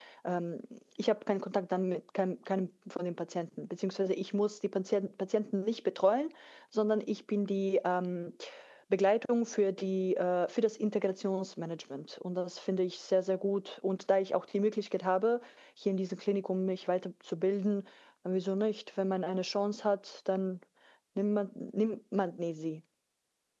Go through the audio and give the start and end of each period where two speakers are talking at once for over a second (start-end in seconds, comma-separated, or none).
none